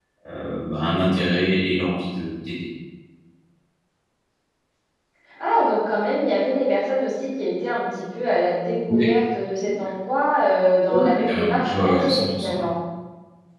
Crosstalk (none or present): present